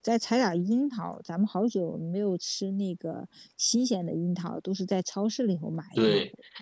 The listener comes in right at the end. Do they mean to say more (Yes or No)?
Yes